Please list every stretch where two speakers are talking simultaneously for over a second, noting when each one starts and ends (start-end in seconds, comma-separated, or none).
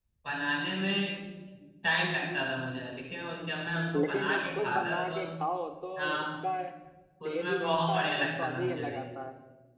4.0-5.2, 7.3-9.0